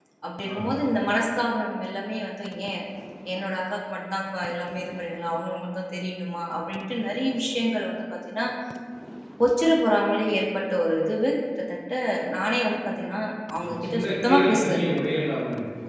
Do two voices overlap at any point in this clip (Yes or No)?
Yes